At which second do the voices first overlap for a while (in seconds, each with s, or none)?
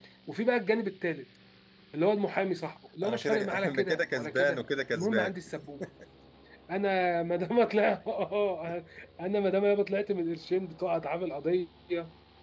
3.0 s